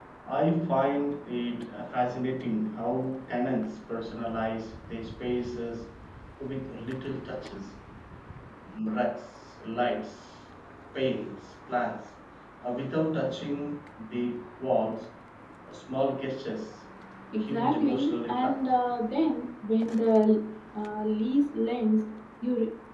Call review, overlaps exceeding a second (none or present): present